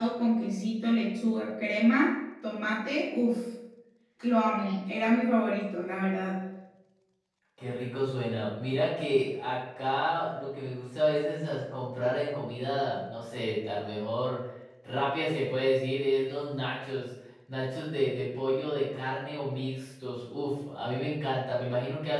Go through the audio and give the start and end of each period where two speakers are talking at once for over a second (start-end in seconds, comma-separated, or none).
none